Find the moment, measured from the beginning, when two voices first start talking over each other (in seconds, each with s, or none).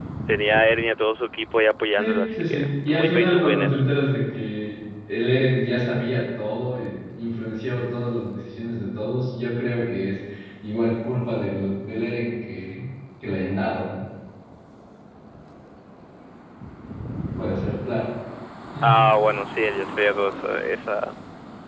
2.0 s